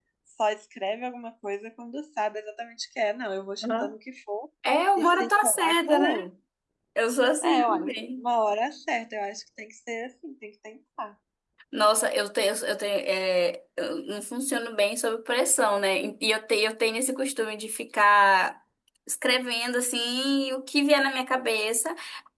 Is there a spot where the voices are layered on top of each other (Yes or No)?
Yes